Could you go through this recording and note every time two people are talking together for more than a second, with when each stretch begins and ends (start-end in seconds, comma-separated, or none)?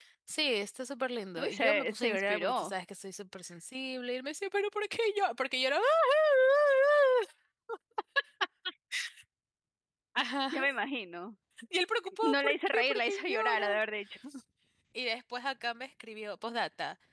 1.4-2.7, 12.2-13.8